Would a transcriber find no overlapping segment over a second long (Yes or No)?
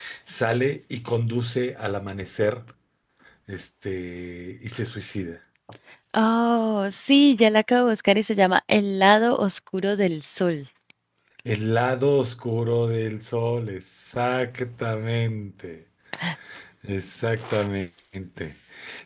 Yes